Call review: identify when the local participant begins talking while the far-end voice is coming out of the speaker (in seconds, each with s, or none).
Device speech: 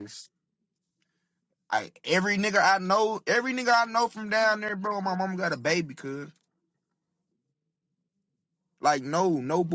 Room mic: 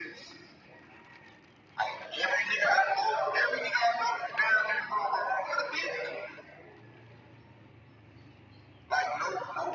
none